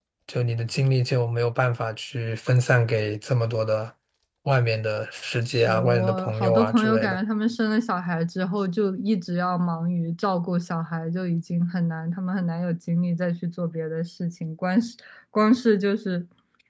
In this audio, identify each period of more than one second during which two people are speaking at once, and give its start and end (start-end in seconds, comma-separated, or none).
5.5-7.2